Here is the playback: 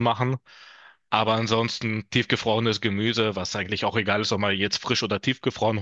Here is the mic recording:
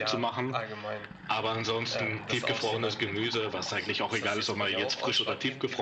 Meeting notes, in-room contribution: present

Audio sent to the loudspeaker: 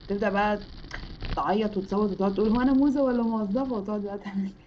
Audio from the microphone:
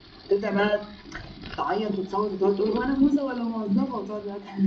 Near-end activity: none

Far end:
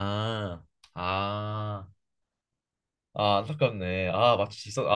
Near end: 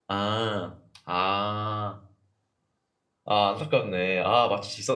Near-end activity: none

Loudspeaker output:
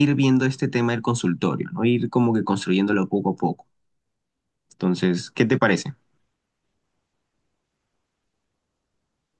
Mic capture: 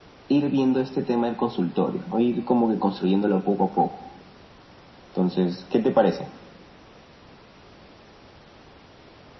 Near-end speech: none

